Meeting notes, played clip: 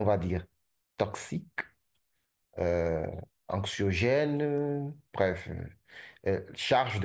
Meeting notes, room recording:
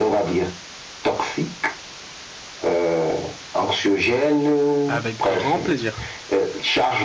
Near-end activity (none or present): present